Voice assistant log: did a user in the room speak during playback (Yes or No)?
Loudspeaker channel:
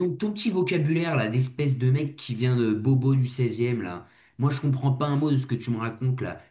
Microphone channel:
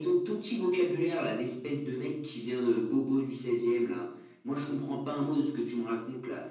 No